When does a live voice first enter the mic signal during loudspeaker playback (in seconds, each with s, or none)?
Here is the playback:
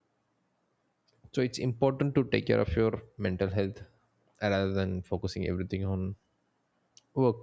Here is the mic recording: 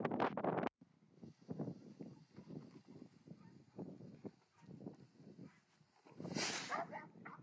none